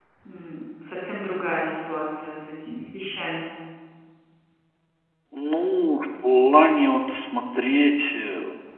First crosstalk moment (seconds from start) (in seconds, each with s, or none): none